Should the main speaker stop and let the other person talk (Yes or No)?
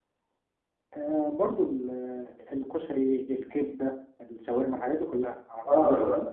Yes